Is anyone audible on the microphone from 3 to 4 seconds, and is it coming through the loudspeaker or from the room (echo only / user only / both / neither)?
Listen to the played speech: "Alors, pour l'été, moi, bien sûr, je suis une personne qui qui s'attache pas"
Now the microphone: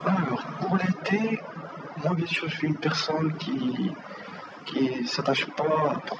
echo only